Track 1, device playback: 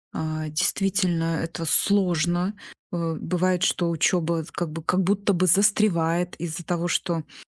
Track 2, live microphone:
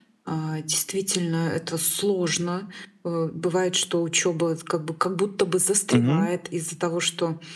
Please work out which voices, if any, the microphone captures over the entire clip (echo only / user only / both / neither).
both